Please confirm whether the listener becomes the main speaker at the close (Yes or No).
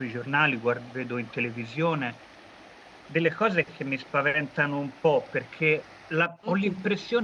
No